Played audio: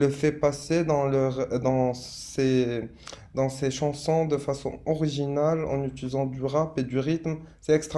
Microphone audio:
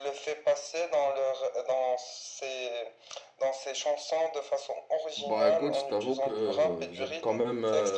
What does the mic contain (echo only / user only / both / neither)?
both